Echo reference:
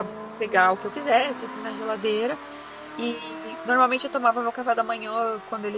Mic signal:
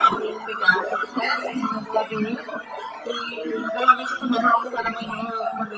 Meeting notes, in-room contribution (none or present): none